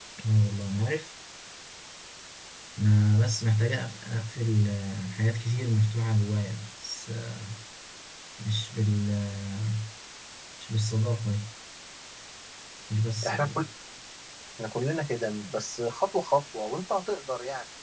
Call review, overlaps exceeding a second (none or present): none